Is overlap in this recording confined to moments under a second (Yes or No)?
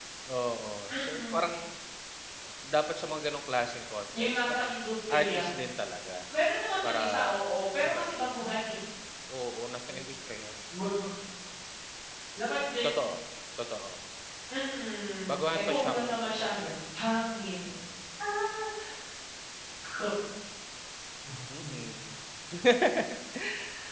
No